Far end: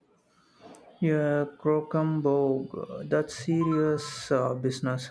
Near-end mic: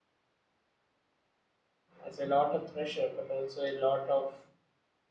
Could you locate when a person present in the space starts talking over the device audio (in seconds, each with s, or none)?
2.0 s